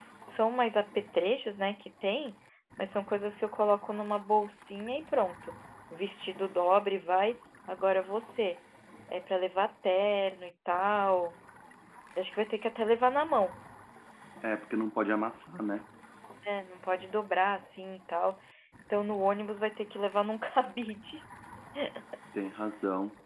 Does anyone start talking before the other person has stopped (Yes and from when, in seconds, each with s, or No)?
No